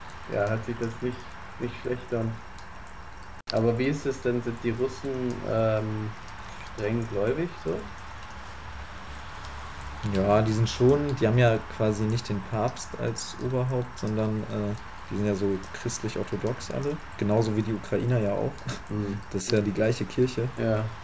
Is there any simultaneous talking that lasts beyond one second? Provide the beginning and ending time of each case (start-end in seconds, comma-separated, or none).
none